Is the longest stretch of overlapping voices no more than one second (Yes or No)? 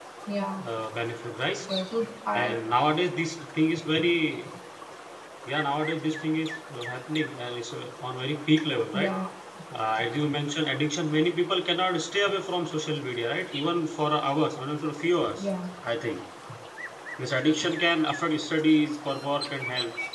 Yes